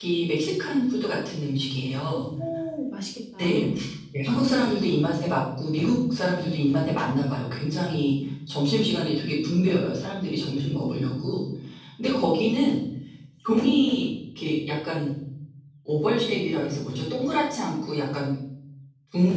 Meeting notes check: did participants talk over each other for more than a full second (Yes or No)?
No